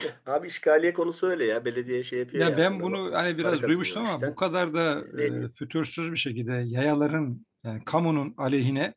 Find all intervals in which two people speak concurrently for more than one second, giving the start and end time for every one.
2.3-4.3

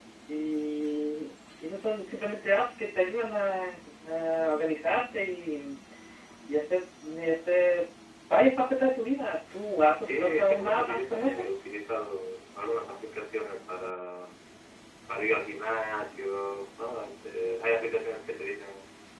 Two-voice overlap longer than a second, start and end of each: 9.9-11.4

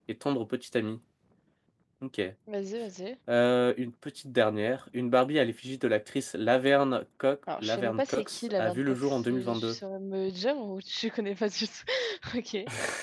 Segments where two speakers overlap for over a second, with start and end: 7.6-9.8

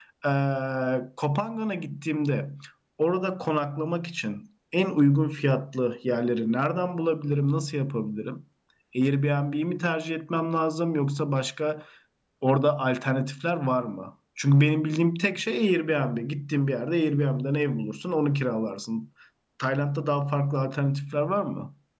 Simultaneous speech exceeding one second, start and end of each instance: none

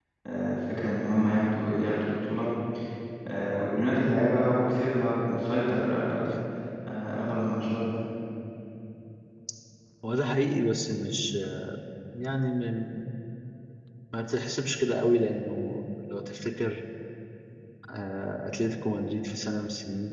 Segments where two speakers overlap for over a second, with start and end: none

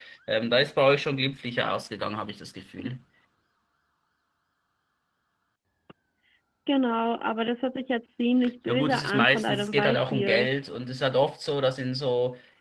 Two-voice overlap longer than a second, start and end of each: 8.7-10.5

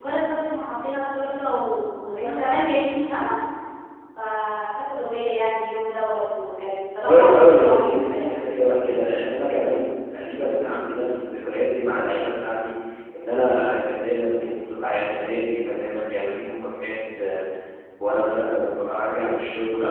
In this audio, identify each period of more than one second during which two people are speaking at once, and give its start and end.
7.1-8.3

